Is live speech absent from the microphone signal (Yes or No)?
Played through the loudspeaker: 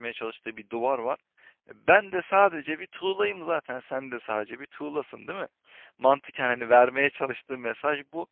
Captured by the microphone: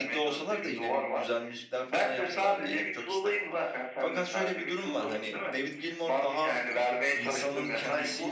No